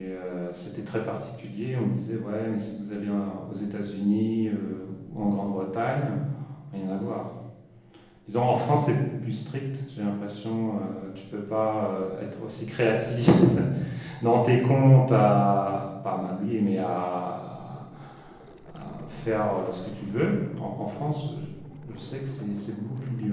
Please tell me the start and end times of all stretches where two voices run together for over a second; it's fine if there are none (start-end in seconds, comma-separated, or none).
none